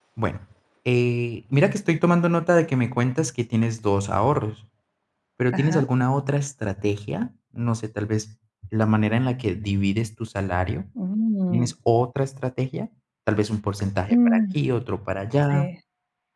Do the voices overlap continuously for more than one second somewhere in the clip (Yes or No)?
No